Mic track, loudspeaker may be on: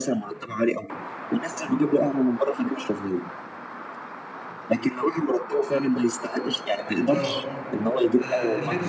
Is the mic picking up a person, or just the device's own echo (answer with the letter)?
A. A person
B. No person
A